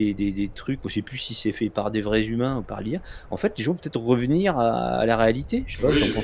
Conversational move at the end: taking over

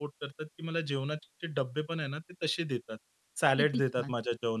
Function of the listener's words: listening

